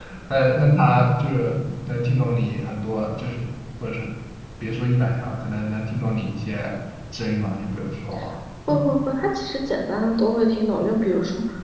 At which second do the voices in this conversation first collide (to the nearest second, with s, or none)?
none